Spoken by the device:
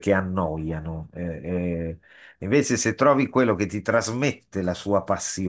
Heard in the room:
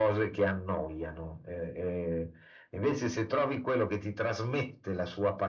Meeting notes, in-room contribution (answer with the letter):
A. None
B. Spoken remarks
A